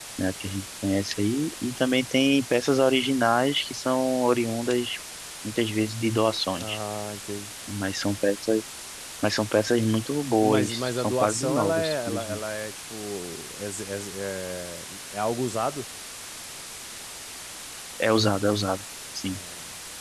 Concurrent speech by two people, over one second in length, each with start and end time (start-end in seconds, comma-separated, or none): 10.4-12.4